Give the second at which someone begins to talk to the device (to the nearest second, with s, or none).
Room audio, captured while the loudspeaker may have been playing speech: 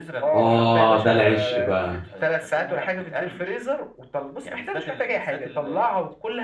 0 s